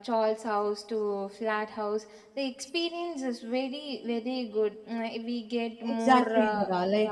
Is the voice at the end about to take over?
Yes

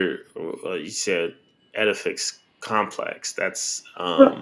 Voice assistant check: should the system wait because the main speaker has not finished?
No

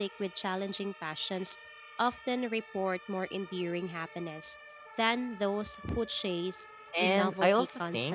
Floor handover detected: Yes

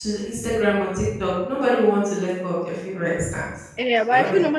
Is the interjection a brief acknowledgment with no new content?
No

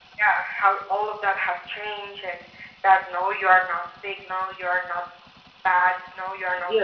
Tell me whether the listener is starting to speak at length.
Yes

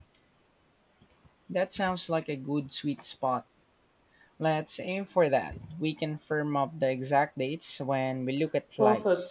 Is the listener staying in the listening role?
No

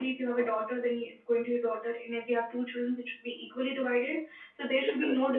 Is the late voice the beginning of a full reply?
No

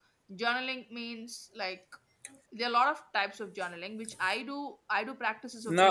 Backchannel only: Yes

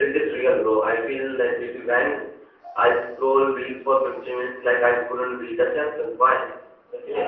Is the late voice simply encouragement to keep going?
No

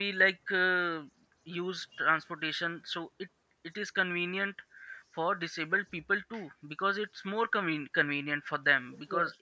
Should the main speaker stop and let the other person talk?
No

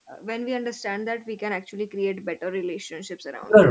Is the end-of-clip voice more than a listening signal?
Yes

